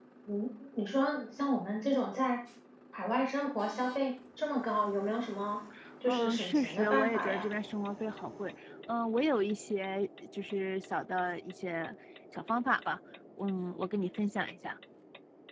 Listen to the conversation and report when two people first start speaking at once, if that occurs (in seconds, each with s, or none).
6.0 s